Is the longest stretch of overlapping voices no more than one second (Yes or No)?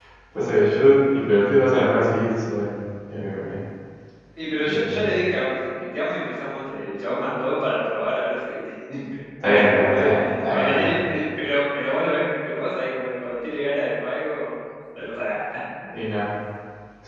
No